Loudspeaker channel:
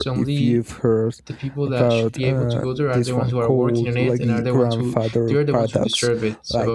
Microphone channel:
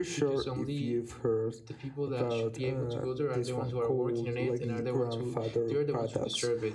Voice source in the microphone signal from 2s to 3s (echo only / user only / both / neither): echo only